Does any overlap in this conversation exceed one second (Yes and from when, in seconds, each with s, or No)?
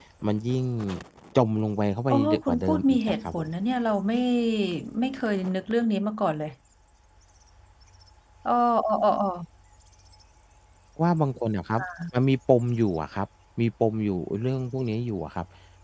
Yes, from 2.1 s